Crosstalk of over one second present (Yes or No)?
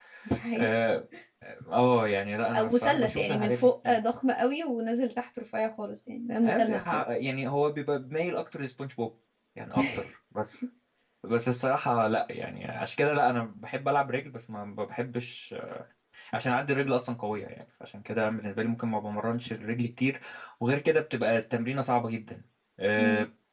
Yes